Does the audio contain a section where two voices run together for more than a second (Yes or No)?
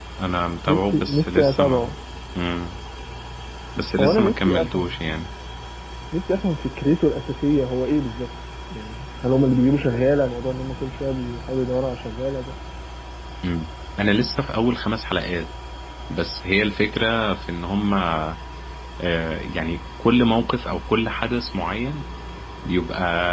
Yes